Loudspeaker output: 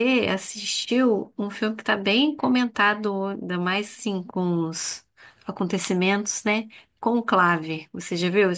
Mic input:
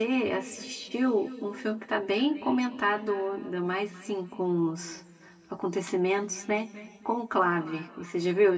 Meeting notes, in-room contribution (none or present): none